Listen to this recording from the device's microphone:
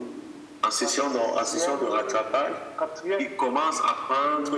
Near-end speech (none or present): none